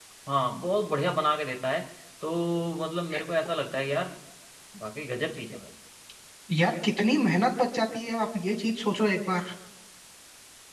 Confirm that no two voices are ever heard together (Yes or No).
Yes